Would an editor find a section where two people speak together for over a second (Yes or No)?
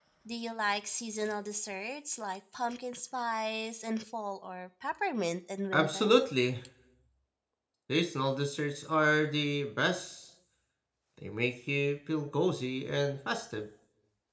No